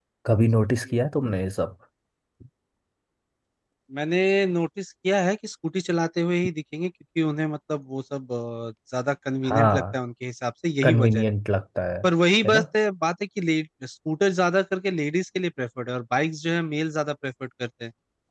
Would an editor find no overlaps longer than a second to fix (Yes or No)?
Yes